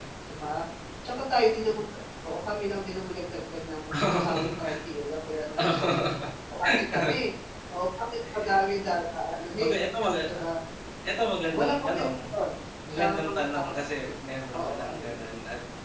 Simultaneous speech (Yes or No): Yes